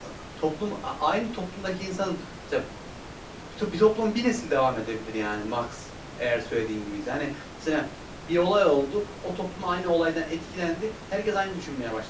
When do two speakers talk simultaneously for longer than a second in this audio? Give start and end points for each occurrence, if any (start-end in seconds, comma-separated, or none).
none